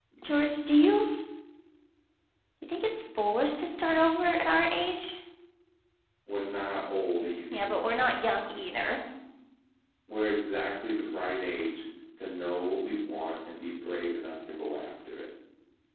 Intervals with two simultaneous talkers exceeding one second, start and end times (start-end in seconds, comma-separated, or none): none